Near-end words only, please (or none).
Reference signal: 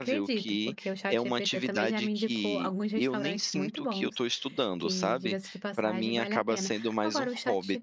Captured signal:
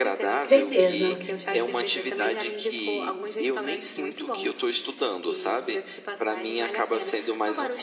Certeza.